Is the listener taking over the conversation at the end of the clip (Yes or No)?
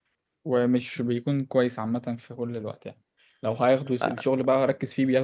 No